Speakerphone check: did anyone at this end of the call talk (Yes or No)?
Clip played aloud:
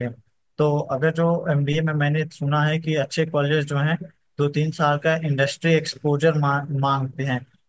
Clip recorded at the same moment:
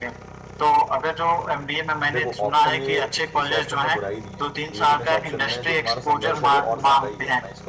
Yes